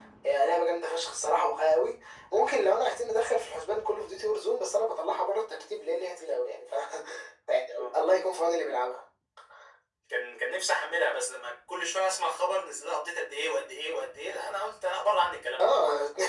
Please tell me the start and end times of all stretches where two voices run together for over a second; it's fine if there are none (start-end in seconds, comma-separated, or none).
none